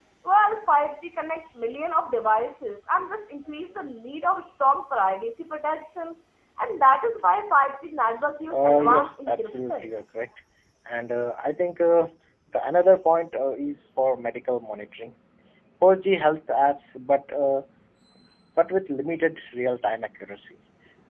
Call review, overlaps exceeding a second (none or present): present